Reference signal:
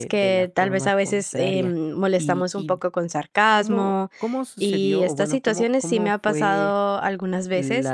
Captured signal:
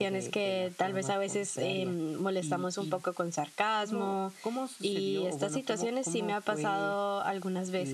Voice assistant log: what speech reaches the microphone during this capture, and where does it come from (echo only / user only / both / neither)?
echo only